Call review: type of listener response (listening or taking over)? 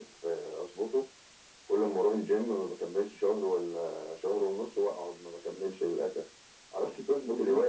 listening